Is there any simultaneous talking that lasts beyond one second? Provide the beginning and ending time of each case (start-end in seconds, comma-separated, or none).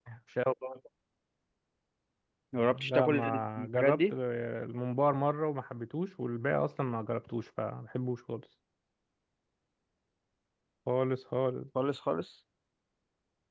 2.7-4.1